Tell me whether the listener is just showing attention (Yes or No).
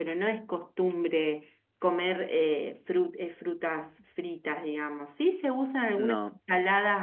Yes